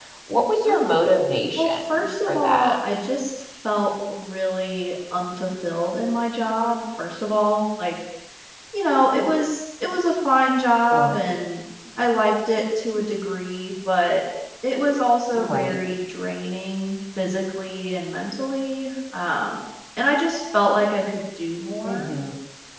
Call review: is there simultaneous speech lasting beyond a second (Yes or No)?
Yes